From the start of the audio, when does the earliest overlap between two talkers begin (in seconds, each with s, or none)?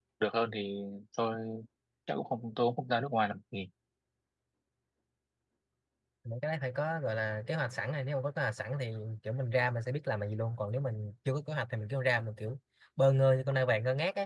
none